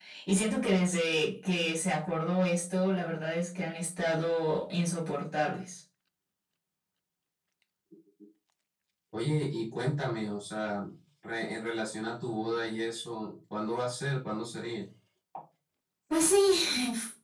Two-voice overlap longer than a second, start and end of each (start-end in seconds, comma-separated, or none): none